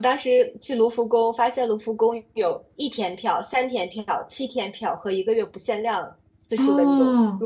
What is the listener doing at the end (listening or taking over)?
listening